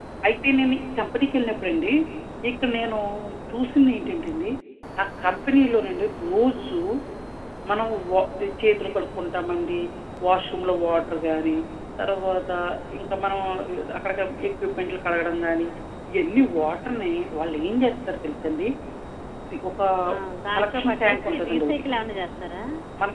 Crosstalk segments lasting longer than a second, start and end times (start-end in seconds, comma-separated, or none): 20.6-21.8